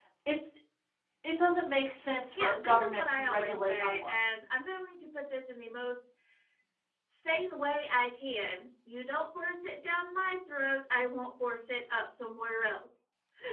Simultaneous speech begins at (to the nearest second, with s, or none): 2 s